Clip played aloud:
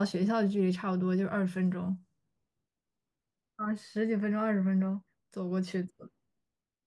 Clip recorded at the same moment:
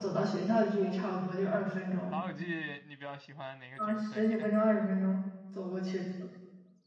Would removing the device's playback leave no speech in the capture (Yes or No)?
No